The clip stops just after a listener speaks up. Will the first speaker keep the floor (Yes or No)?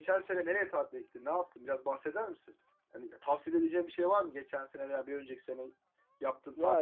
No